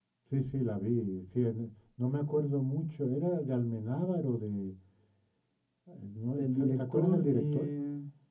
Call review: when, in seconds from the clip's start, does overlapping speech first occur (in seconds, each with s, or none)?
6.3 s